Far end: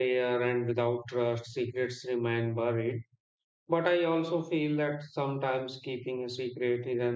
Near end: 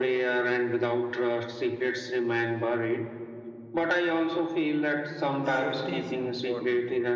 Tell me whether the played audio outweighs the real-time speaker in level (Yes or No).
Yes